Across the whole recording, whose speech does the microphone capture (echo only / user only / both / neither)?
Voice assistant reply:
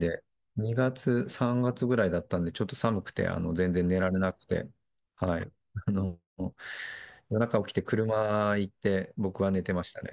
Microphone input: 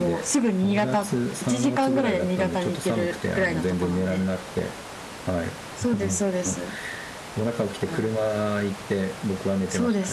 both